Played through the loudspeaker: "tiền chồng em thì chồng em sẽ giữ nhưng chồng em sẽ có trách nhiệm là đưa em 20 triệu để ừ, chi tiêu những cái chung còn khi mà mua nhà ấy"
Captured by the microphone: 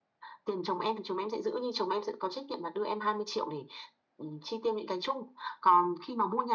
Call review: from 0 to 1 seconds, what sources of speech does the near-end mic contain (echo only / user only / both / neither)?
echo only